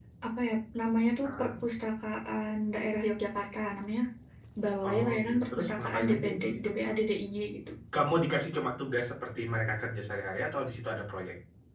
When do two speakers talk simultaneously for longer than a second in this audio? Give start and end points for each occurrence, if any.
4.8-6.7

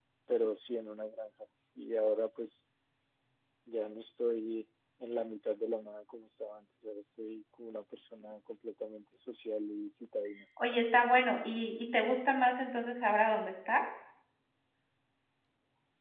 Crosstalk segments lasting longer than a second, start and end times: none

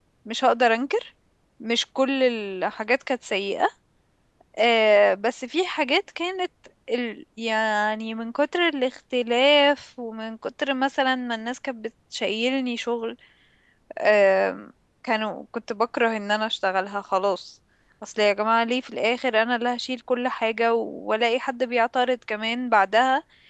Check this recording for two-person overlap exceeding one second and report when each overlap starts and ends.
none

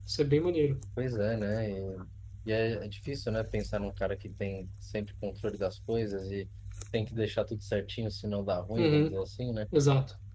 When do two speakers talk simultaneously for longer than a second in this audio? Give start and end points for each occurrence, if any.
none

